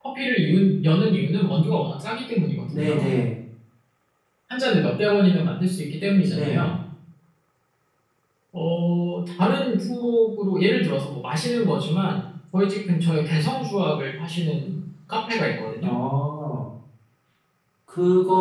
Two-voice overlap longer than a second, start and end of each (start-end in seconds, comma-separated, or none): none